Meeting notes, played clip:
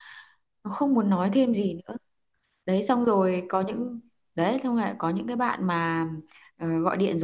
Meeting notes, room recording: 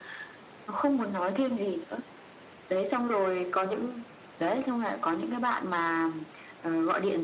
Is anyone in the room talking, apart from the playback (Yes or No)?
No